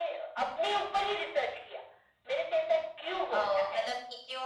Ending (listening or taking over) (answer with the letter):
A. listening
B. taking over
B